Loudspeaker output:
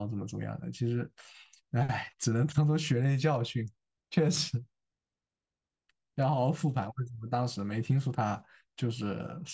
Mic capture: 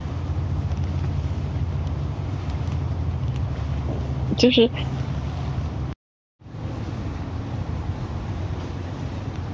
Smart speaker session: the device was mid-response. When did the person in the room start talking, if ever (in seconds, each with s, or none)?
4.4 s